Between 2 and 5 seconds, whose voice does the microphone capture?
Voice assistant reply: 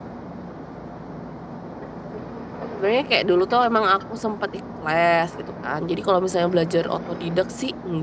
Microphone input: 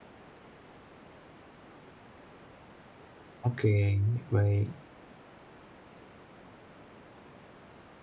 user only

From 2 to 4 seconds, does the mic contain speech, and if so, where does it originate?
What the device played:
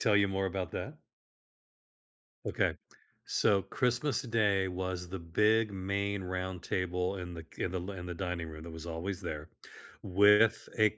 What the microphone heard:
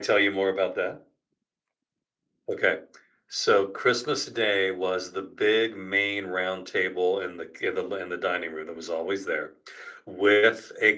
echo only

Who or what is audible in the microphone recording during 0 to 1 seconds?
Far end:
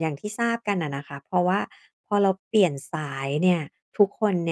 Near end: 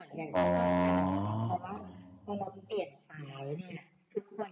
both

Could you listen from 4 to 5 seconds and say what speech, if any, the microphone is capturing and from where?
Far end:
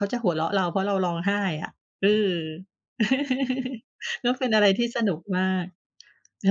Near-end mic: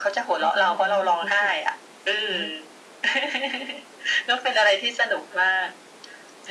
echo only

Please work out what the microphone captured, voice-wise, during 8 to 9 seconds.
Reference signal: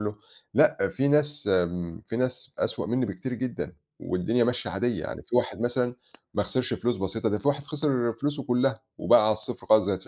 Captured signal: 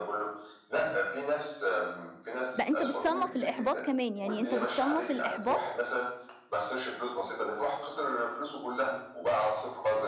echo only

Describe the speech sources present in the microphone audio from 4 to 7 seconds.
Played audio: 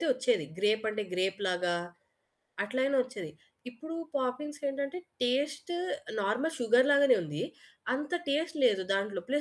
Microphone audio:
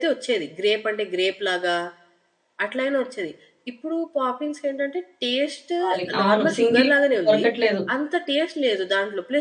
both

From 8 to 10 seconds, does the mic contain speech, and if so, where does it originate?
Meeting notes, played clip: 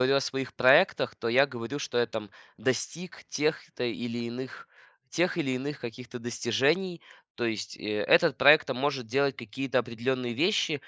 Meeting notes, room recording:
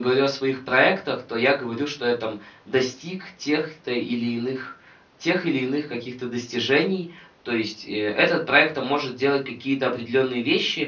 echo only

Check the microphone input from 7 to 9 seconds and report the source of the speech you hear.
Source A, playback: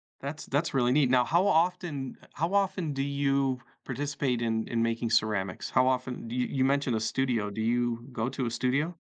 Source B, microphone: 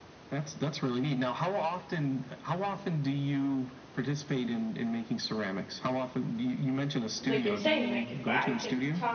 both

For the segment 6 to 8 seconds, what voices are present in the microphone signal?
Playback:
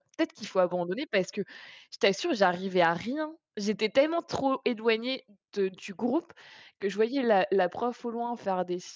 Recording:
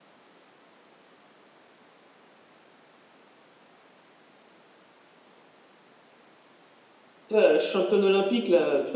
user only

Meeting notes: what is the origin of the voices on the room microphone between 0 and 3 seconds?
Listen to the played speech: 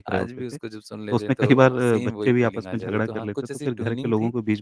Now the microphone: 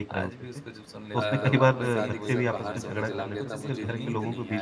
both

